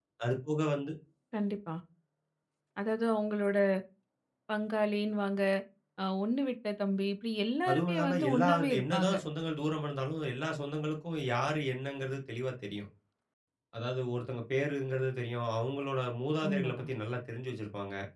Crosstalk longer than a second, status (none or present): present